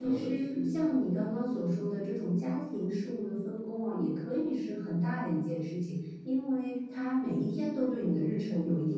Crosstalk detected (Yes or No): Yes